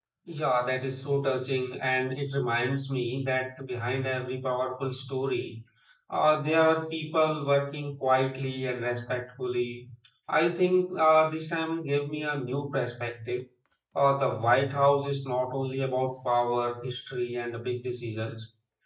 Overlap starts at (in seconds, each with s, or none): none